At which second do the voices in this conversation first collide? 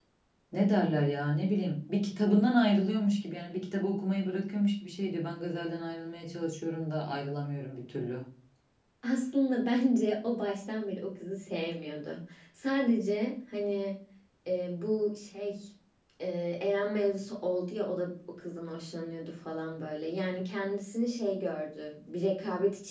none

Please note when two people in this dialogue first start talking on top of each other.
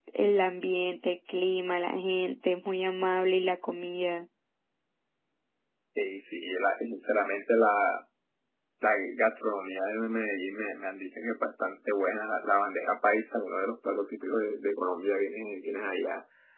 none

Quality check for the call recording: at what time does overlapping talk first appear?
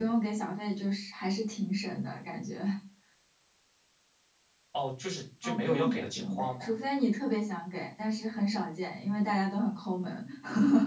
5.4 s

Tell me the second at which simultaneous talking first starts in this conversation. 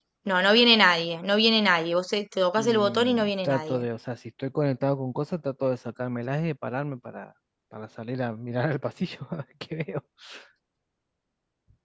2.6 s

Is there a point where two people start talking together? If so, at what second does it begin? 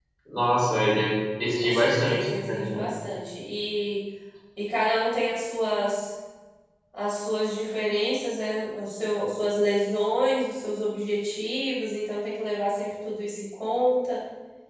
1.6 s

